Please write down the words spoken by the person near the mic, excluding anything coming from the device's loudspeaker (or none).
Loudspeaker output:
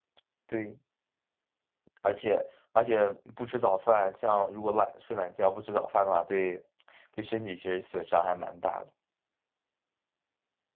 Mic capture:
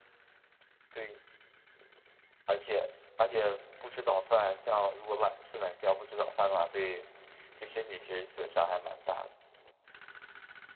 none